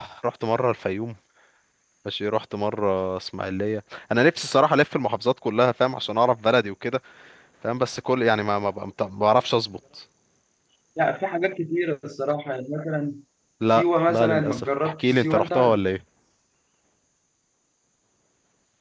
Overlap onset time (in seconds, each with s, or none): 13.7 s